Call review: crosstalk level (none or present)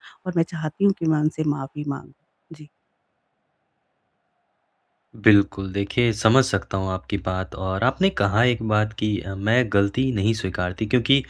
none